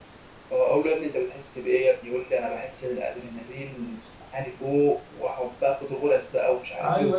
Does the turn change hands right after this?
Yes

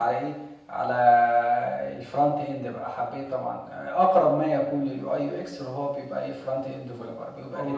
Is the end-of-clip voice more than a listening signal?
Yes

